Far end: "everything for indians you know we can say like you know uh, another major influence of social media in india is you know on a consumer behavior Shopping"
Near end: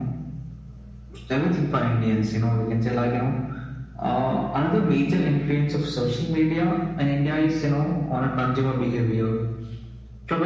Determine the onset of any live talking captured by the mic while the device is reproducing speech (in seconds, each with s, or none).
none